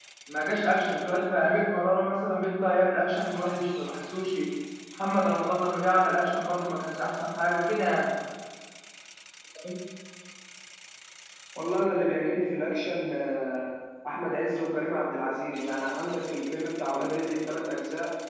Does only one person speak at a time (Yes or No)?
Yes